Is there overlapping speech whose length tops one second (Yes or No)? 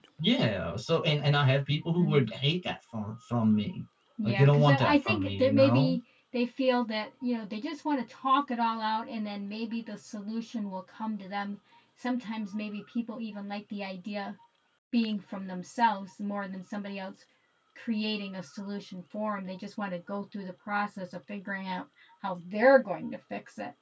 Yes